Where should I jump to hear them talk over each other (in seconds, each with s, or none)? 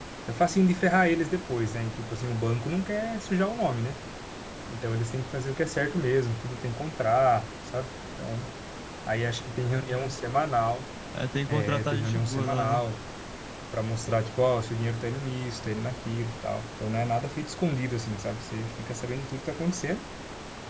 11.5 s